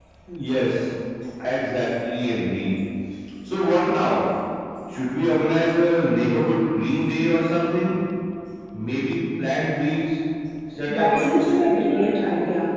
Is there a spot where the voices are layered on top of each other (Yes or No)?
Yes